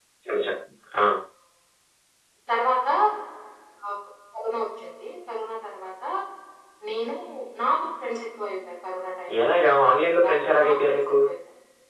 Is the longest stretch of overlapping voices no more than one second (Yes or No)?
No